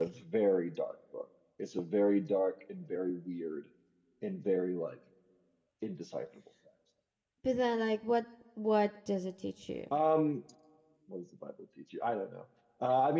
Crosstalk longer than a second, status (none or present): none